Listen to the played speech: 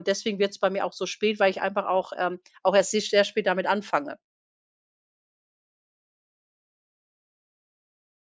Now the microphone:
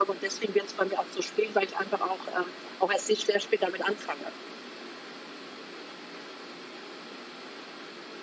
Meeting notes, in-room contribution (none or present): none